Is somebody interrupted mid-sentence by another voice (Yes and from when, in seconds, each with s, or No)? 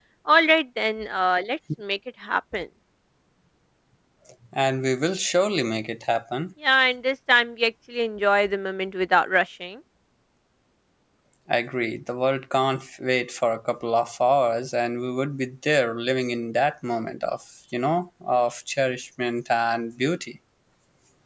No